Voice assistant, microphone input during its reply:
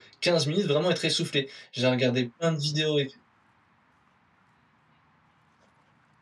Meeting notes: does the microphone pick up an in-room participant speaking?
No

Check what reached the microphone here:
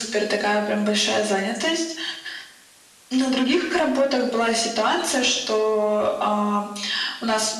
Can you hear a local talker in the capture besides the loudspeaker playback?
No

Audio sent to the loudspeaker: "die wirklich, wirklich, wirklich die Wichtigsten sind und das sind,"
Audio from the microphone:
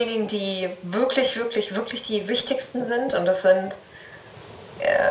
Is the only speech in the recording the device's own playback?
Yes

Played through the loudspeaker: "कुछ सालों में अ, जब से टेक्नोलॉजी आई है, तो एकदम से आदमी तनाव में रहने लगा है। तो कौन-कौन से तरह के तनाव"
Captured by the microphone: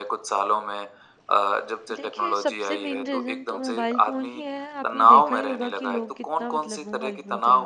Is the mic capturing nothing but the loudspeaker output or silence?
No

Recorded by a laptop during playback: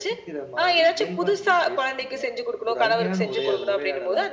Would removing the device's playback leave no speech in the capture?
No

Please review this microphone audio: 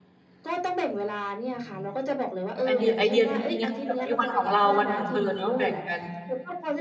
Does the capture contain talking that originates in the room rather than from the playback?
Yes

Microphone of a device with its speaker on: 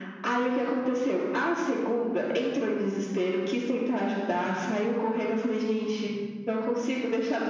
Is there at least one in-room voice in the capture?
No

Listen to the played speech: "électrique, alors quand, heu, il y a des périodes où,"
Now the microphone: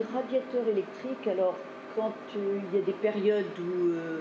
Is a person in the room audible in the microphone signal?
No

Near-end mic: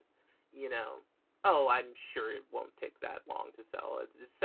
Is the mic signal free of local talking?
No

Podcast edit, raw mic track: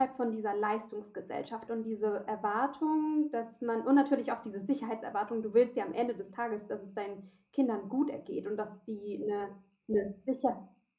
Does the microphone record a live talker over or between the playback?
Yes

